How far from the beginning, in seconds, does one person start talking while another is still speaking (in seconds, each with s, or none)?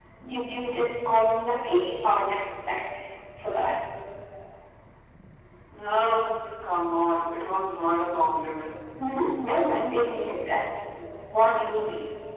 none